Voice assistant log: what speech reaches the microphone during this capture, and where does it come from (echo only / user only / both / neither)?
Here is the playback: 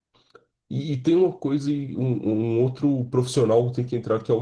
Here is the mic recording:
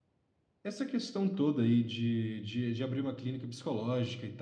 user only